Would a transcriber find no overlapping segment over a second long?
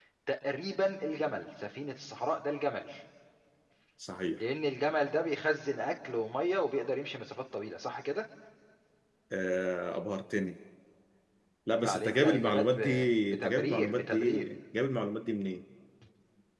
No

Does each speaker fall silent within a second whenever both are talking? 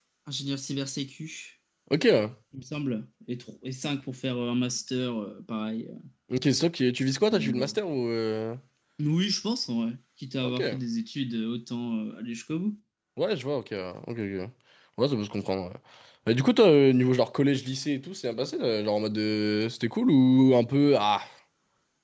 Yes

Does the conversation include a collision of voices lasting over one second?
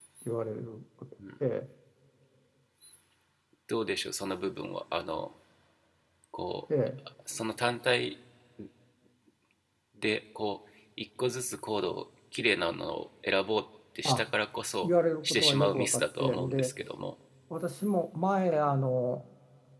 Yes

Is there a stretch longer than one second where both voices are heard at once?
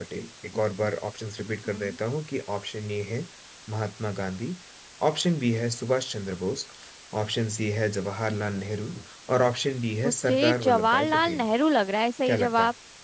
Yes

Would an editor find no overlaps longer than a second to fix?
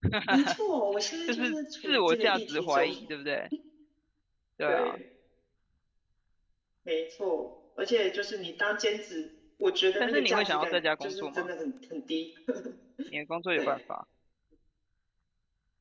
No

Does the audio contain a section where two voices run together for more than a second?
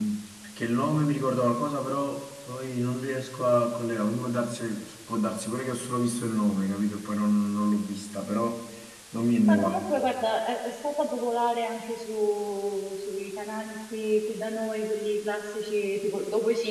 No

